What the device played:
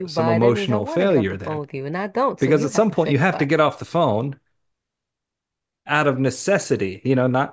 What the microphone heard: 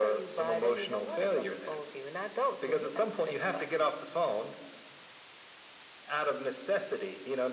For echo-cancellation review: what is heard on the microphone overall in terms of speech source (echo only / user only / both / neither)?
echo only